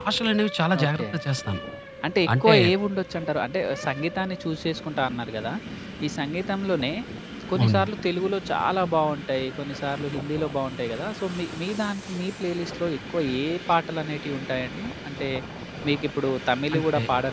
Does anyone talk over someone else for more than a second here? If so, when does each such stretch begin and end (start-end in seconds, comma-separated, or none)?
none